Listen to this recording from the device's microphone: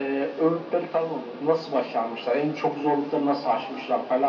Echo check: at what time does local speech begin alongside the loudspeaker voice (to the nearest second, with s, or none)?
none